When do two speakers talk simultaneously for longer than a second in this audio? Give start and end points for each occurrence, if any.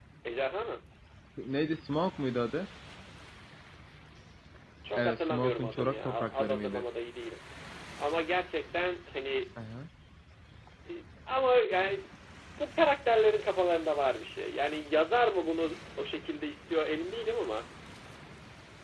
5.0-6.8

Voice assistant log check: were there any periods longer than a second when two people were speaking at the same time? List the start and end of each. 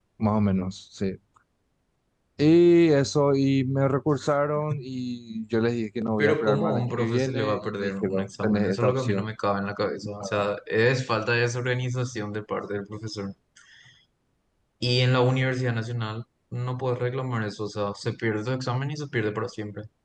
6.2-9.3

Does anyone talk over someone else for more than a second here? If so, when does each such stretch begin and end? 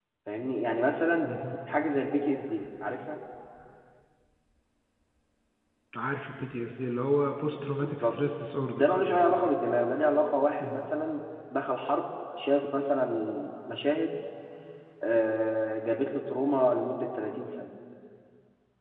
none

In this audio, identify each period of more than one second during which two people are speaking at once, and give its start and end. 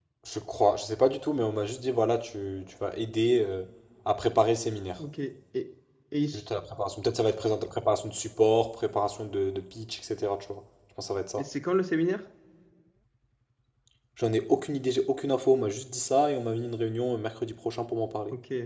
none

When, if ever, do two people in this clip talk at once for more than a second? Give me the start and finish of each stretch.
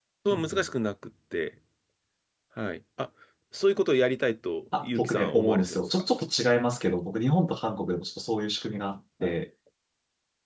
4.7-6.0

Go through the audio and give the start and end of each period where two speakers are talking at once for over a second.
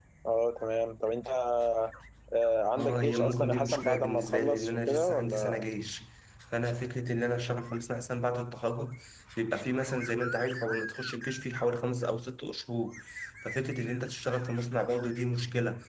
2.8-5.7

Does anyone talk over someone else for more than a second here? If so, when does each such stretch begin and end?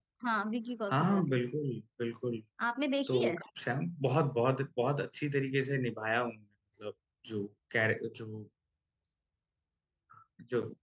none

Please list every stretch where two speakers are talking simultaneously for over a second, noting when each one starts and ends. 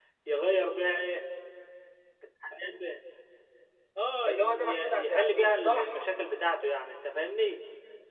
4.3-6.1

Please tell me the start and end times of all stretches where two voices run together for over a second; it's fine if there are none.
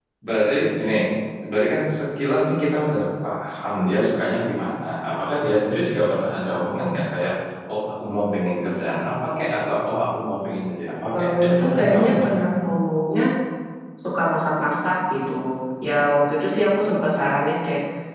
11.1-12.5

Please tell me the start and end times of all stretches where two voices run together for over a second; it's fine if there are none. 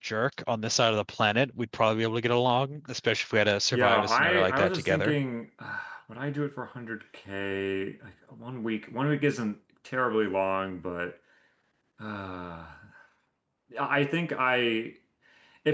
3.7-5.2

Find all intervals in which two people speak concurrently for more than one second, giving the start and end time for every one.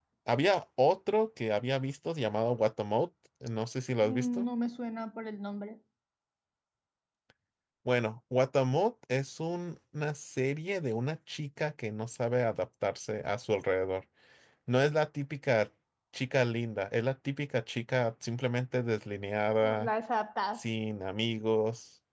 none

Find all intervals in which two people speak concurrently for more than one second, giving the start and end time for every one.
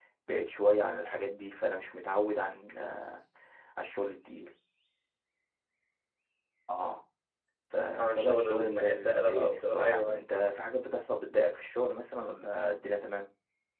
8.0-10.2

